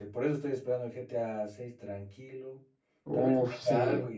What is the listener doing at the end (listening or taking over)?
listening